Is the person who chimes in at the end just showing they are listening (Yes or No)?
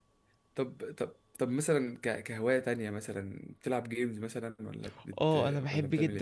No